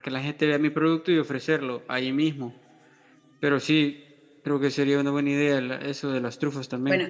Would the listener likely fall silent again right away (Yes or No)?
No